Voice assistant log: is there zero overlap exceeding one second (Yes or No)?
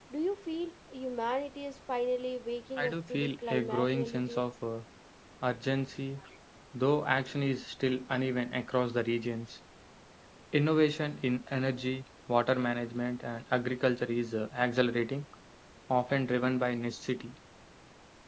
No